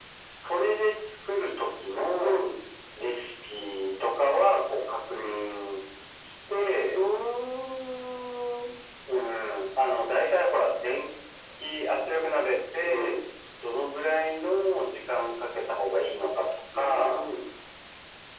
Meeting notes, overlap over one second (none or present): none